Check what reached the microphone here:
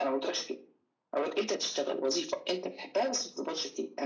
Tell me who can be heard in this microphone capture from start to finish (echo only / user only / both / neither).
echo only